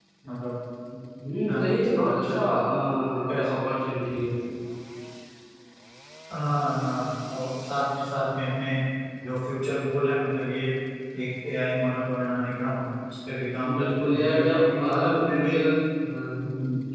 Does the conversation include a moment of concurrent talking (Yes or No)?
Yes